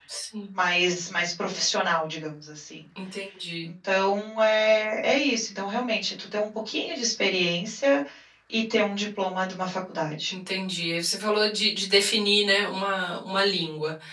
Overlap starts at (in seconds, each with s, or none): none